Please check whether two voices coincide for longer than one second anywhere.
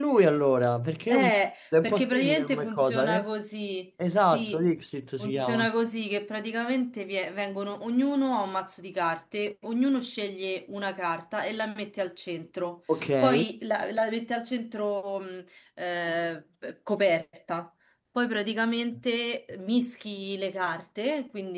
Yes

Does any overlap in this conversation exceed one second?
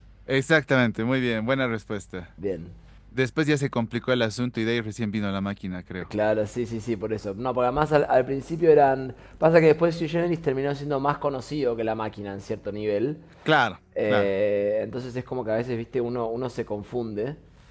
No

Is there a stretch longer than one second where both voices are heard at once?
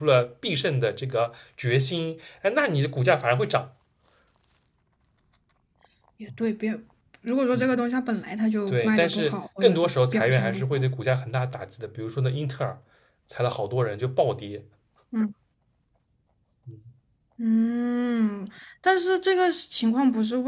Yes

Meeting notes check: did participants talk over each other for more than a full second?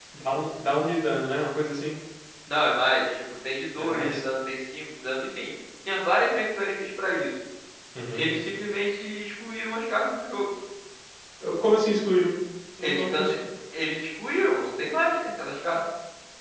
No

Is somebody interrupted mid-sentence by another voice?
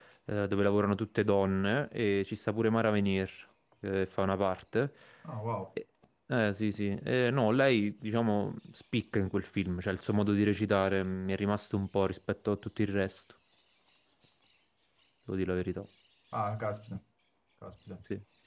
No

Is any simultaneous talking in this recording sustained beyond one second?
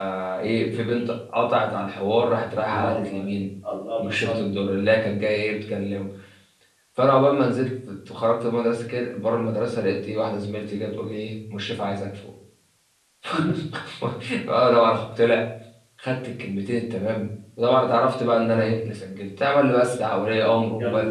No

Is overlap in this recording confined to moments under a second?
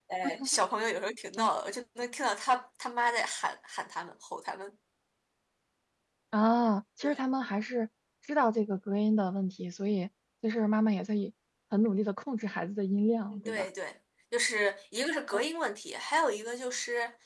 Yes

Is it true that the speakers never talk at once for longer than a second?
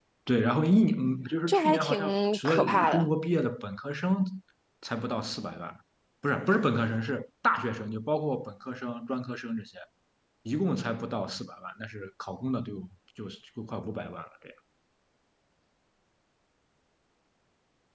No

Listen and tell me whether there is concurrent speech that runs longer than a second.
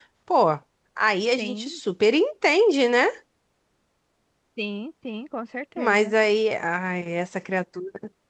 No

